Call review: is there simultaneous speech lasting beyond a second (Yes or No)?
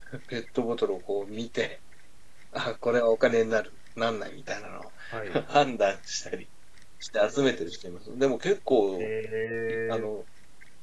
No